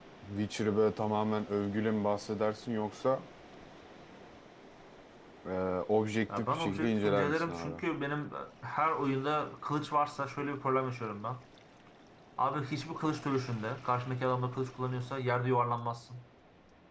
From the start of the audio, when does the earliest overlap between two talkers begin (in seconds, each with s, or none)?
6.4 s